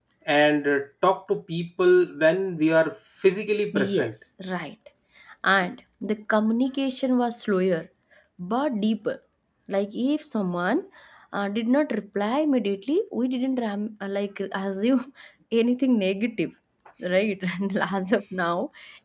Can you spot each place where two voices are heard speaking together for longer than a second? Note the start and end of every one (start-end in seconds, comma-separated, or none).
none